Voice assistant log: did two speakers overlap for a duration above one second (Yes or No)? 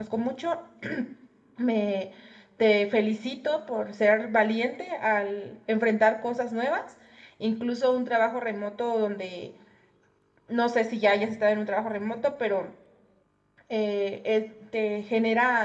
No